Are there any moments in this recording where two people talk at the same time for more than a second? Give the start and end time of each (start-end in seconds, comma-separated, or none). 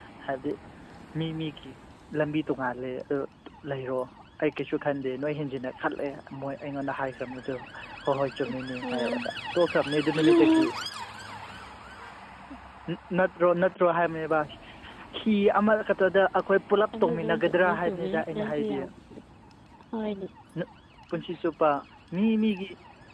17.0-18.8